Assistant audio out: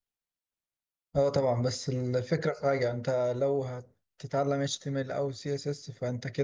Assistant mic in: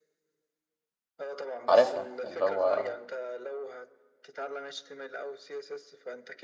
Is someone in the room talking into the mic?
Yes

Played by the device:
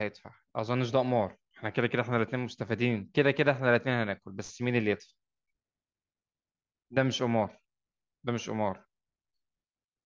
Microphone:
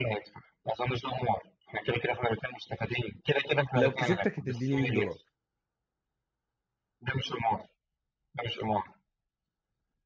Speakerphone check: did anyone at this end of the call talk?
Yes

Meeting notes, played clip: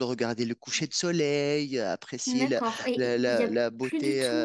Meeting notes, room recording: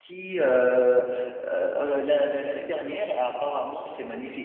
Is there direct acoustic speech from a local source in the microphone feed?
Yes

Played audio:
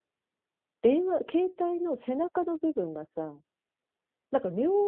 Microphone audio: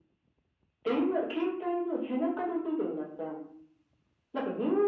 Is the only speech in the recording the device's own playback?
Yes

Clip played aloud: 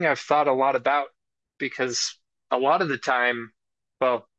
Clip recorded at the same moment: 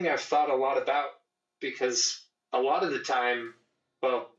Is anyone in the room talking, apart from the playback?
No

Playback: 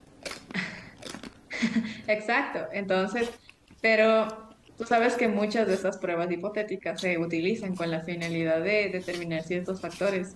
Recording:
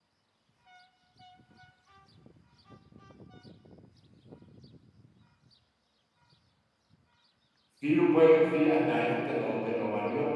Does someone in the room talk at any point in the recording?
Yes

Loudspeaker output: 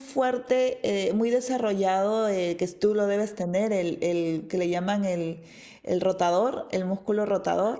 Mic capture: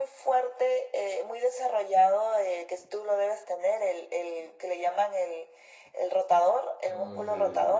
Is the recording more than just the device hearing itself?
Yes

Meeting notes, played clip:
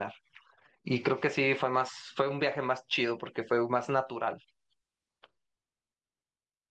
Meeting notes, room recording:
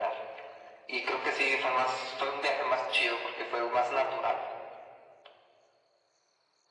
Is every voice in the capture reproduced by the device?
Yes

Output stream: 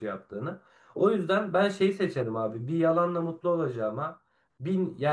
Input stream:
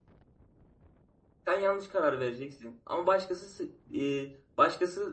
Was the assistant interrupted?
Yes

